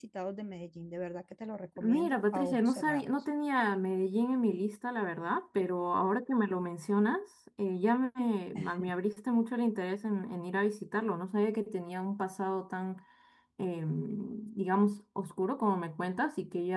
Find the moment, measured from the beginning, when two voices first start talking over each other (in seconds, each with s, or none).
1.8 s